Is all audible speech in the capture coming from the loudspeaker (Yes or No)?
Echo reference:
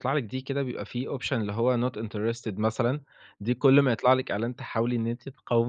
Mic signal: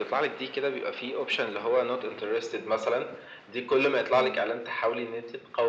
No